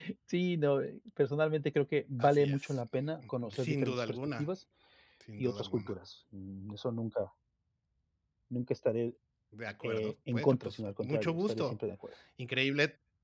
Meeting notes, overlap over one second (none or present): present